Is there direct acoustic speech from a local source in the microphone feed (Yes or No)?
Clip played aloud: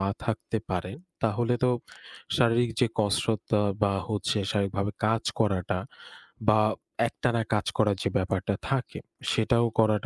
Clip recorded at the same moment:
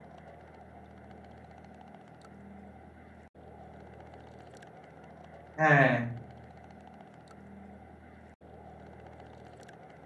Yes